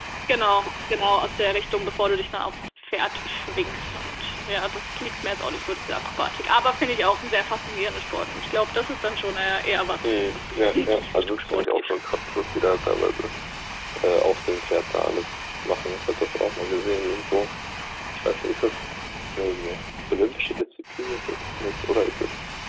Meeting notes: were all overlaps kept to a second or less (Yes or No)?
No